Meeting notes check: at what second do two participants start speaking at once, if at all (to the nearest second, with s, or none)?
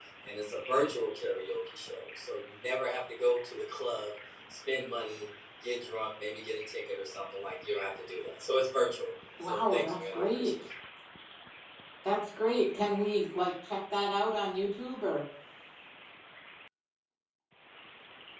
9 s